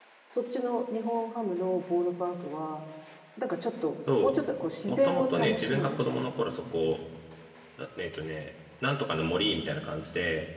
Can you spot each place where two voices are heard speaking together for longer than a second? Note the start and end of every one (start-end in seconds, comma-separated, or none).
4.9-6.3